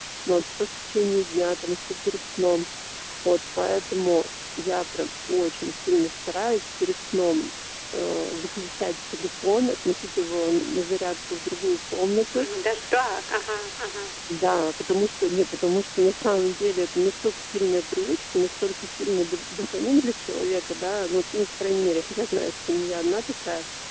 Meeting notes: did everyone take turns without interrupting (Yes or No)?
Yes